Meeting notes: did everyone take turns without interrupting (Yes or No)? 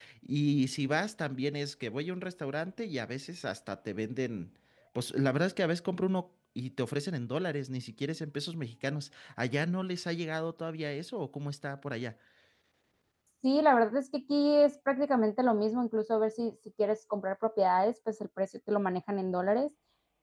Yes